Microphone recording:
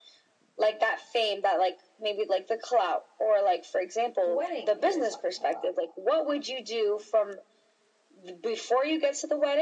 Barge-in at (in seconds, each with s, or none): 4.2 s